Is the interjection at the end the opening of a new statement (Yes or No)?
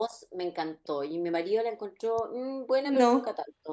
No